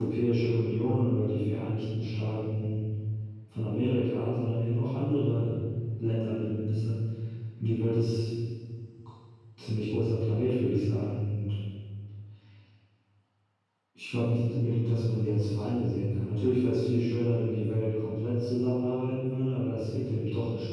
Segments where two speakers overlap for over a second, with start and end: none

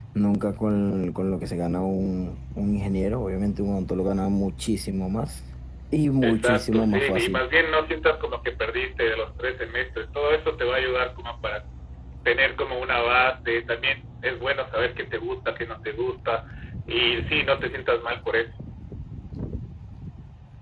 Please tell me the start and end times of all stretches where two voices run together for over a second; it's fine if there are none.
6.2-7.4

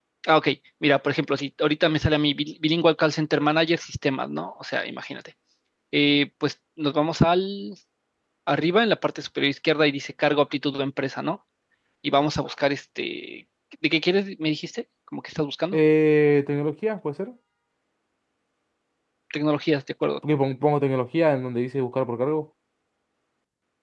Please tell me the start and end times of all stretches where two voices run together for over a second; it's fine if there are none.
none

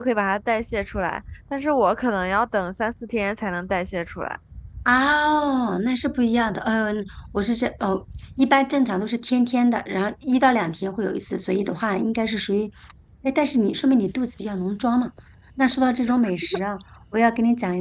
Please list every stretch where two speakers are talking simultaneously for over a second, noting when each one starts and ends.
none

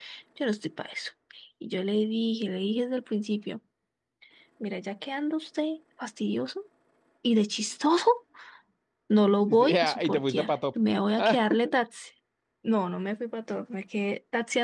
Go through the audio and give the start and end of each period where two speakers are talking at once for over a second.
9.5-10.8

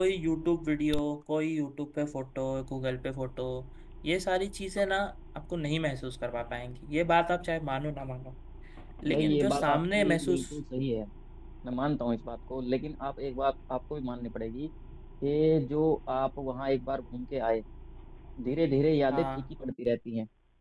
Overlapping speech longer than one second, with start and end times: 9.1-10.5

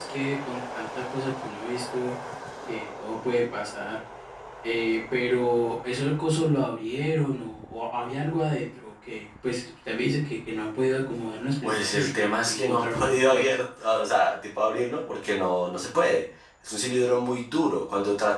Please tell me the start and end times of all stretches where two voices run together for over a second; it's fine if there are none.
11.6-13.6

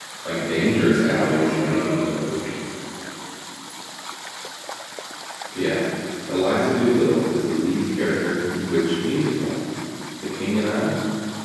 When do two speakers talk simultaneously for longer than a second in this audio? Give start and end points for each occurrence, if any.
1.0-2.2

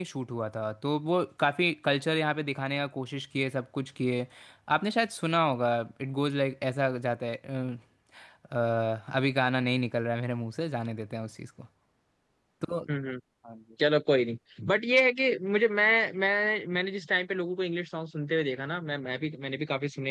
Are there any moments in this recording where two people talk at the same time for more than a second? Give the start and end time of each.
none

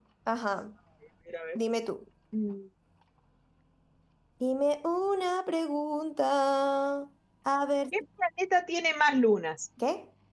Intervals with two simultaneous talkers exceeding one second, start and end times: none

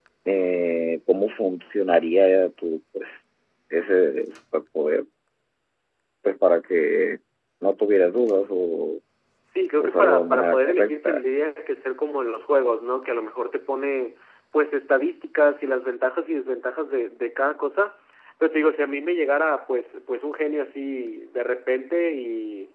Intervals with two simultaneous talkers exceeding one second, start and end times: 9.8-11.2

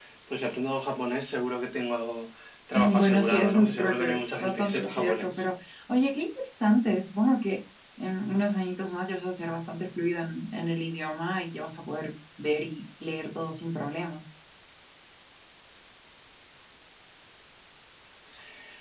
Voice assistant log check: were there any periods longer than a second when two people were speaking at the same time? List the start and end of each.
2.7-5.4

